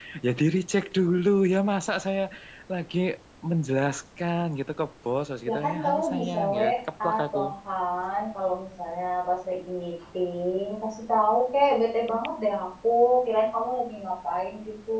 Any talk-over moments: Yes, from 5.5 s

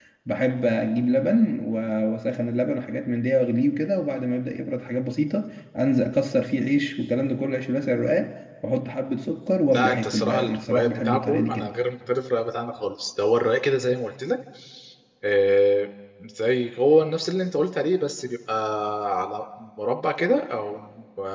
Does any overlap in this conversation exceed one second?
Yes, from 9.7 s

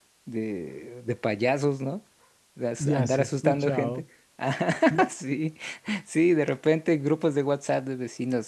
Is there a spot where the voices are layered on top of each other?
Yes, from 2.8 s

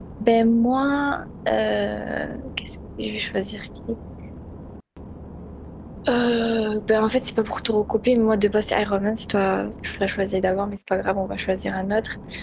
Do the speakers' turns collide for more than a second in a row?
No

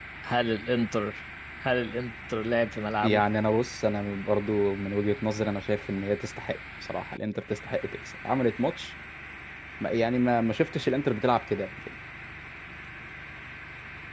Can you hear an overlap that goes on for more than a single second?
No

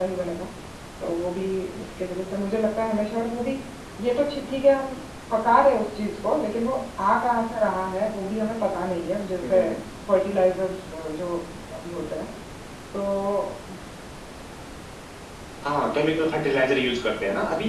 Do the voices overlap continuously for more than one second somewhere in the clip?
No

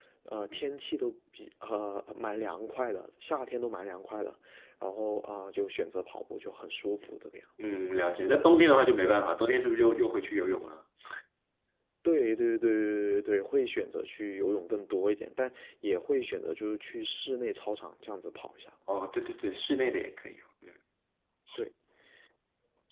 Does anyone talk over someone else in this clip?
No

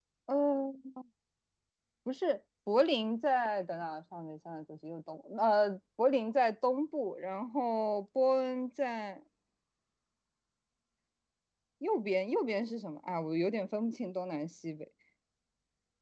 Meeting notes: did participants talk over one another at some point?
No

